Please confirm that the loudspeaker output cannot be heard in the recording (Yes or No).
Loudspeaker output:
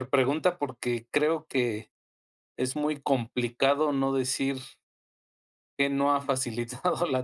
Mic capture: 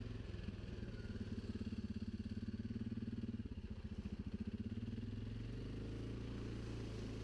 Yes